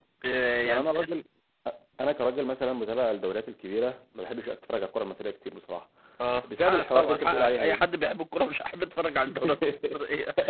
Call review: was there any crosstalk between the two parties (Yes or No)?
Yes